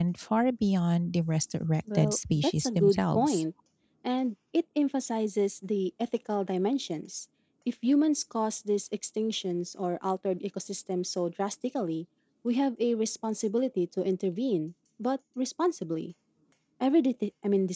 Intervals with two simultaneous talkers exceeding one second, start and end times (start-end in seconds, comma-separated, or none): 2.0-3.4